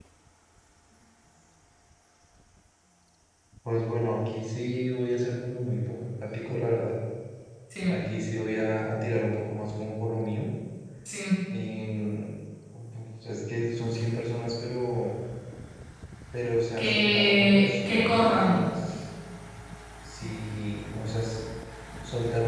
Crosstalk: present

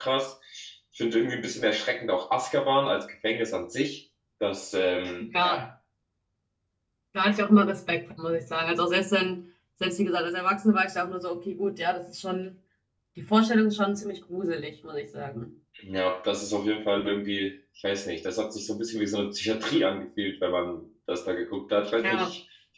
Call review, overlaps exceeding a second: none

